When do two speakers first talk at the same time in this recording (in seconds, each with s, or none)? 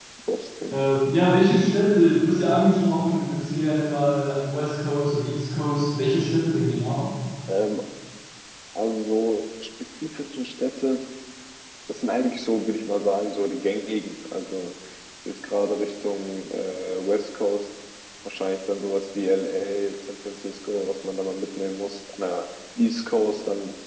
none